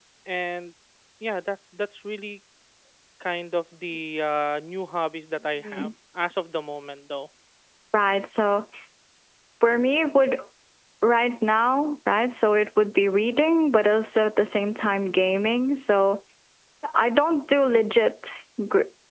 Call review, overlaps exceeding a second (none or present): none